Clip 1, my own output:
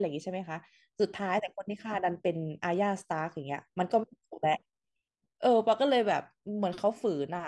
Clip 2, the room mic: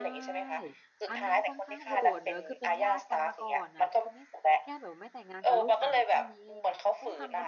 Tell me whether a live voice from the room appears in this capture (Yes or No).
Yes